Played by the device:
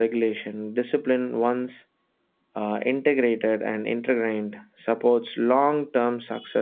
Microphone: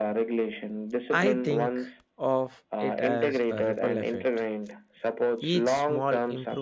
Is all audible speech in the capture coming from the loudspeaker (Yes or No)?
No